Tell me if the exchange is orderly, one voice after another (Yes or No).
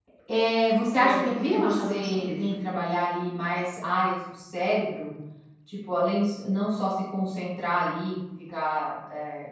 No